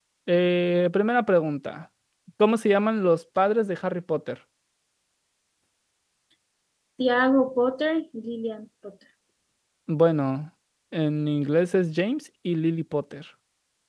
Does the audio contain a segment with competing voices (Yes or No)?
No